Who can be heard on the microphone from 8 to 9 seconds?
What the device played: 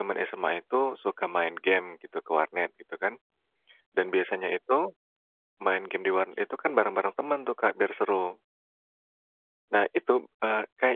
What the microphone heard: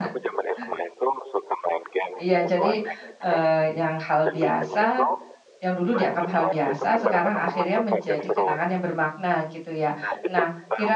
both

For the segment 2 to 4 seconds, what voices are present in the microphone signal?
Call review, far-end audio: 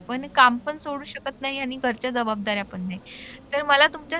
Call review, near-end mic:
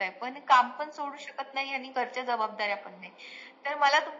echo only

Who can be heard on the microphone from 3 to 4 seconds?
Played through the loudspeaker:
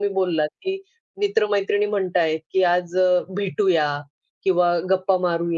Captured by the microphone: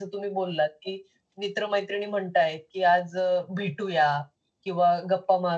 echo only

